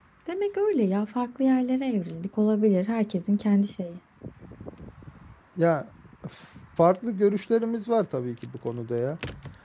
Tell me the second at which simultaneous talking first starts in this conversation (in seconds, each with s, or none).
none